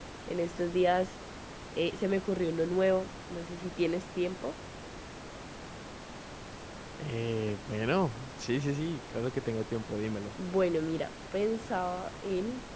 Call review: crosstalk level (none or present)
none